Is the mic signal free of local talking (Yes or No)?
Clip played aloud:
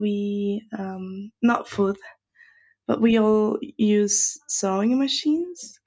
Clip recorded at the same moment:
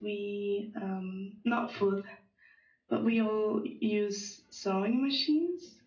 Yes